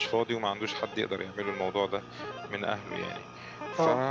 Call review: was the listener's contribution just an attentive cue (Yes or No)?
Yes